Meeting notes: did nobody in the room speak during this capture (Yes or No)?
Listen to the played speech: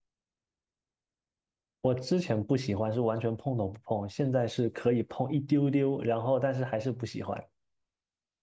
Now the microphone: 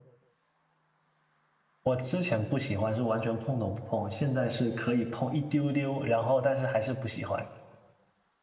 Yes